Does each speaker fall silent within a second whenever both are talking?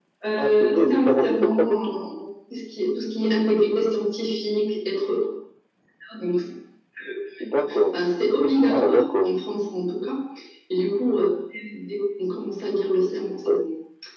No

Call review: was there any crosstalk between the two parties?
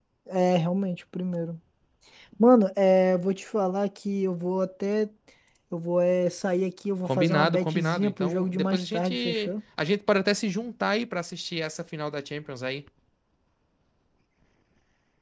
Yes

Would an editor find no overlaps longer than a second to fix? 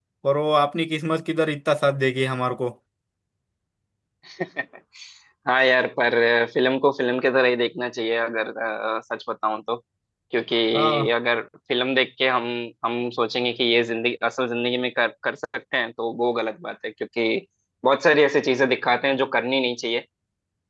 Yes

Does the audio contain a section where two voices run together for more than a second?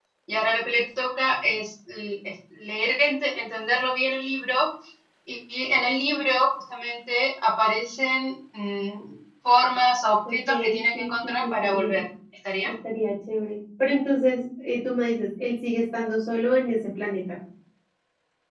Yes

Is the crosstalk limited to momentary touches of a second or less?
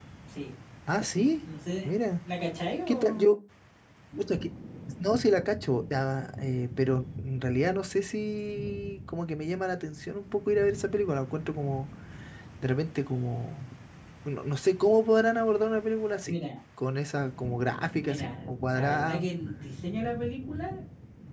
No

